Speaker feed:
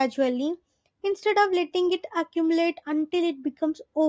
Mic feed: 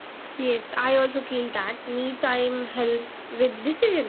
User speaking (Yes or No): Yes